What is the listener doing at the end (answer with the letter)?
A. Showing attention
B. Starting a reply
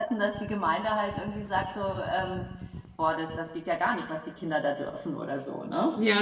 B